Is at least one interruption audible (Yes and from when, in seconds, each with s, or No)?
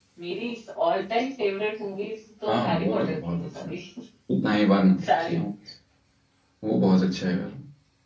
Yes, from 2.5 s